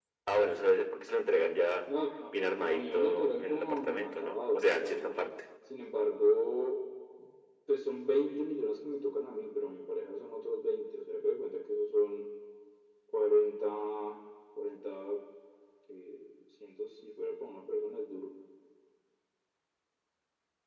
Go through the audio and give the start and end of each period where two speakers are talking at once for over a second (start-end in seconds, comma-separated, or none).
2.7-5.3